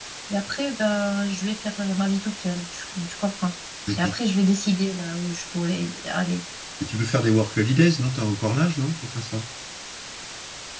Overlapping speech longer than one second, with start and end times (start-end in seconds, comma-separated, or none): none